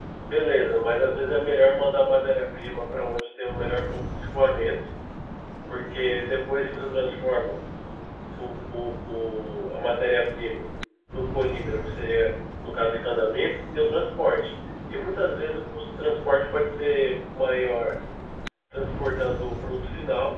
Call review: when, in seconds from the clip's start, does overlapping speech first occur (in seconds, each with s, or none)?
none